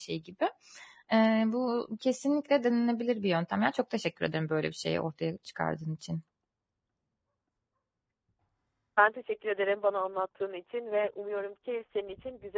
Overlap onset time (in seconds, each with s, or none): none